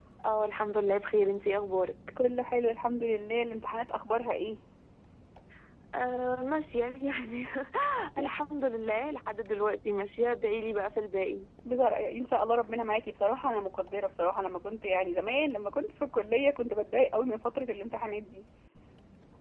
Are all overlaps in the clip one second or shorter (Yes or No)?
Yes